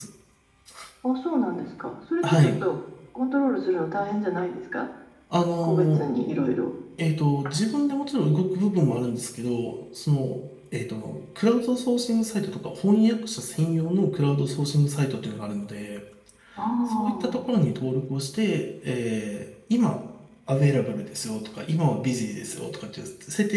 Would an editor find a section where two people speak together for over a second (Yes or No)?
No